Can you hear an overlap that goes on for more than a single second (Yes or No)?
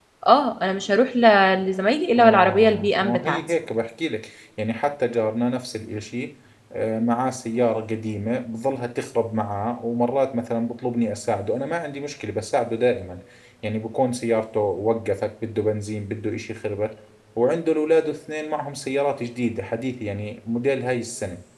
Yes